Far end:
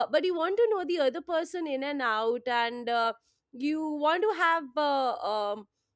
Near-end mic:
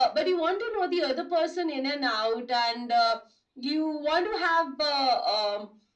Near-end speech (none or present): none